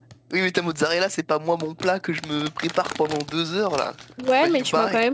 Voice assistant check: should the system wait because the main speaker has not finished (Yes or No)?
No